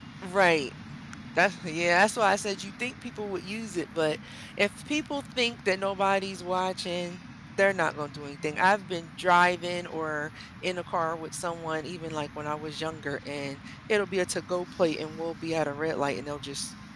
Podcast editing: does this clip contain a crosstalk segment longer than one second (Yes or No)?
No